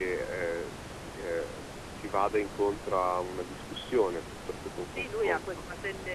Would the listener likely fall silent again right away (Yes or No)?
No